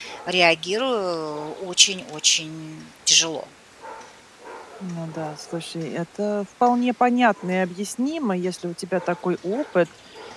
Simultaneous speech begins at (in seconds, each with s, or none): none